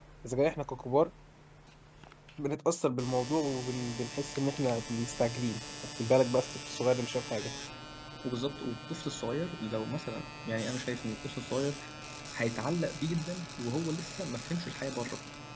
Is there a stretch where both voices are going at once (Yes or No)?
No